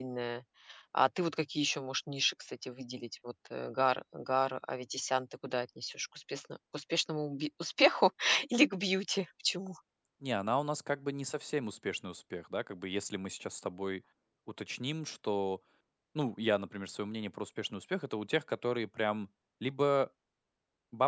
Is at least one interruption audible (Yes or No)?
No